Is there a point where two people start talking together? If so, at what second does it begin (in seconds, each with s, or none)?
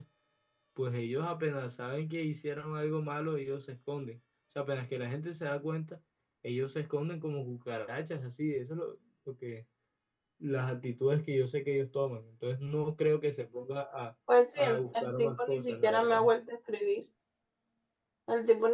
14.6 s